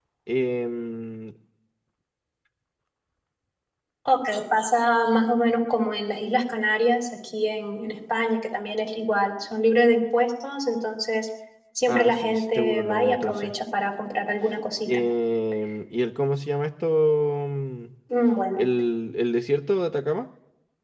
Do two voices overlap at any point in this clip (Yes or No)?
Yes